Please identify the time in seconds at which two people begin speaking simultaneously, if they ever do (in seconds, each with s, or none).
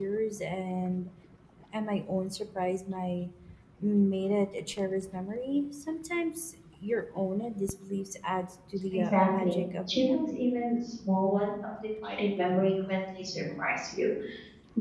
8.9 s